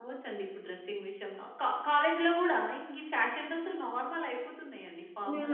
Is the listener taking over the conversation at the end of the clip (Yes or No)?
Yes